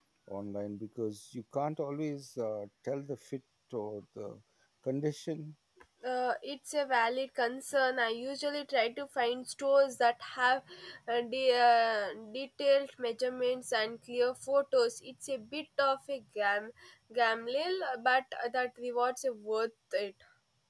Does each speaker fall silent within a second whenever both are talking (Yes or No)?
Yes